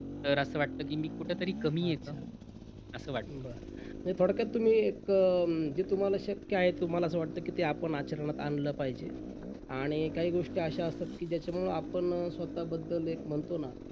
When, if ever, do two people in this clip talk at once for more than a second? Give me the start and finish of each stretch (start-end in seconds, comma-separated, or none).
none